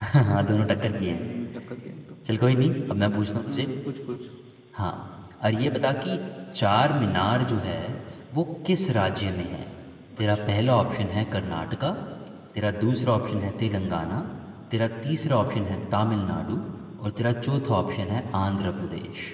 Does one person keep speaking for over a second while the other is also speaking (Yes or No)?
No